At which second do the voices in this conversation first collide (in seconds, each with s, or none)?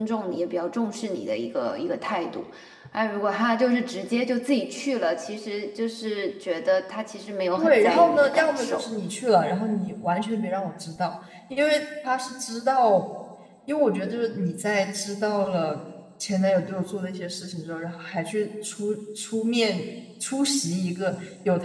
7.6 s